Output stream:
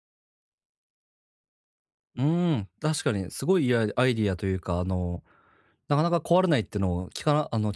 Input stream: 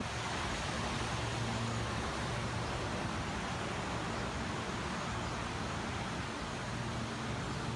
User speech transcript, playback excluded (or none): none